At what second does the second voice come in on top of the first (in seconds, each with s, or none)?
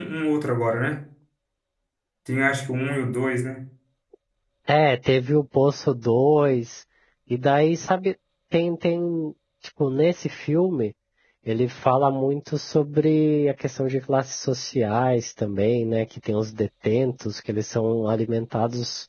none